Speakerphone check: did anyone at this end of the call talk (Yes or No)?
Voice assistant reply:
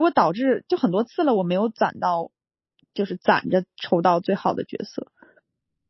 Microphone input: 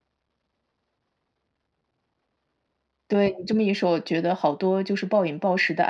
Yes